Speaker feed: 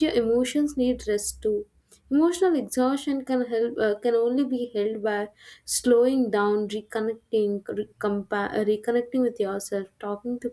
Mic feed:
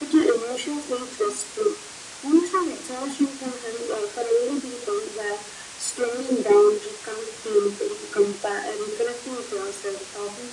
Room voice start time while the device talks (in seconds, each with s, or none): none